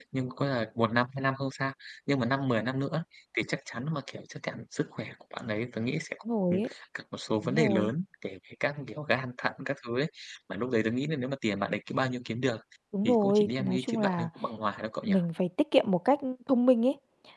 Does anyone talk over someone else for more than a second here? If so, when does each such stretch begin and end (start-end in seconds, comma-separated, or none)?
13.0-14.3